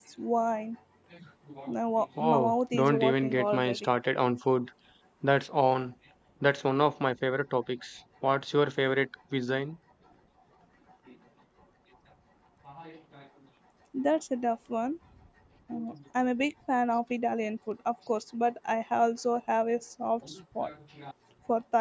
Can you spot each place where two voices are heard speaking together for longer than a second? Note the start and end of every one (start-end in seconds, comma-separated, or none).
2.2-3.9